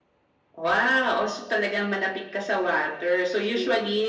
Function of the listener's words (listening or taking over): listening